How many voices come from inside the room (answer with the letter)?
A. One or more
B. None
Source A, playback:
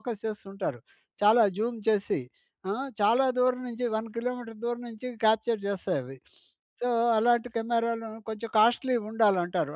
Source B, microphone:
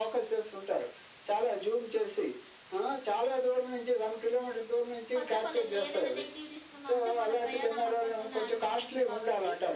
A